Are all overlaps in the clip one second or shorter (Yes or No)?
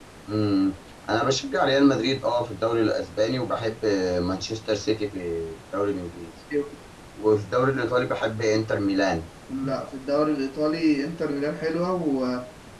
Yes